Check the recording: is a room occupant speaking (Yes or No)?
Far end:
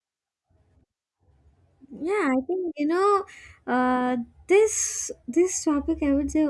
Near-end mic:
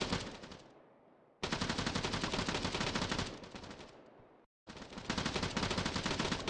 No